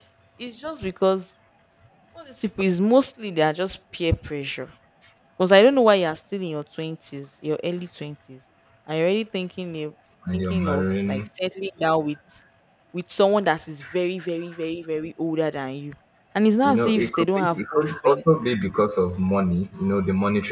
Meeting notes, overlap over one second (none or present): present